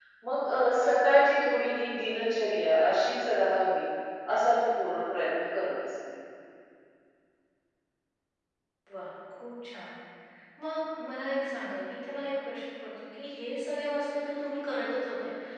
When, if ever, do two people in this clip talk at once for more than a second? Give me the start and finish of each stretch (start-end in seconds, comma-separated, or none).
none